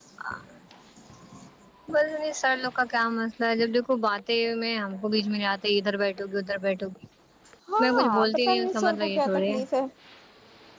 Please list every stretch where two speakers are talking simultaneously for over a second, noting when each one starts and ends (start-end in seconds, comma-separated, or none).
7.8-9.6